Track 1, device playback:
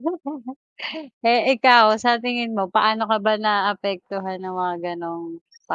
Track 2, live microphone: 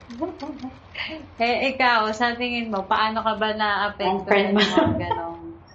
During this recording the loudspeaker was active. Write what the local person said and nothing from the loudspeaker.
Unfiriend mo na lang.

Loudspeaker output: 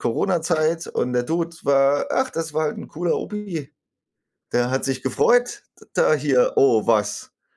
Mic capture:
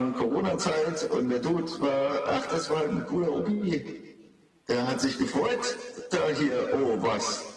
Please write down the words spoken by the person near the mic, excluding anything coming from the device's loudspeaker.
none

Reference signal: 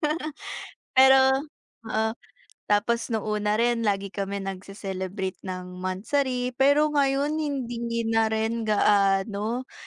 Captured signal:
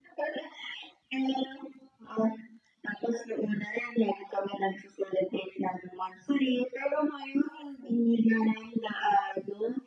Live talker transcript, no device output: none

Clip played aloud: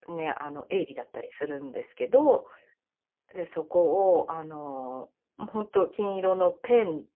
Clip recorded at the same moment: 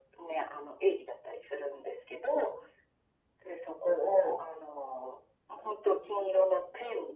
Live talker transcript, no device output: none

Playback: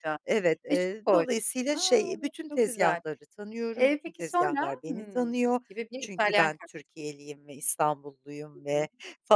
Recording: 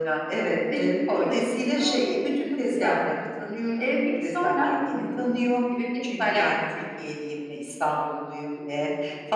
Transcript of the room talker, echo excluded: none

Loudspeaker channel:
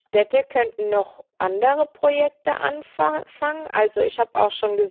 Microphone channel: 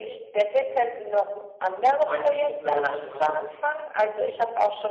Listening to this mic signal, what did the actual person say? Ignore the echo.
meintest du, glaube ich, ja, das ist

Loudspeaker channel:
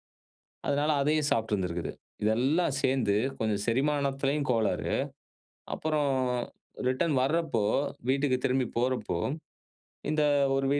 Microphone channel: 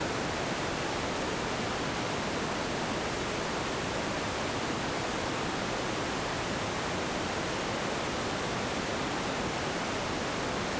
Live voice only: none

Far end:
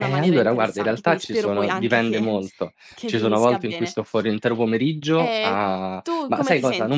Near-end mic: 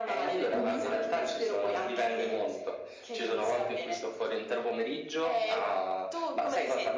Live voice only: Mh-mh.

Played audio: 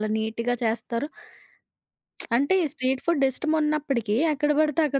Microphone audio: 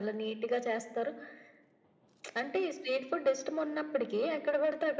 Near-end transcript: none

